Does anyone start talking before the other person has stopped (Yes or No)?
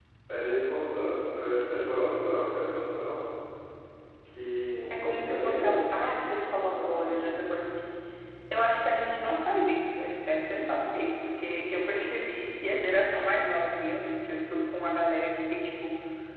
Yes